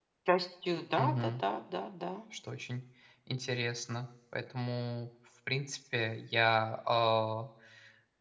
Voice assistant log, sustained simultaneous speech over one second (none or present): none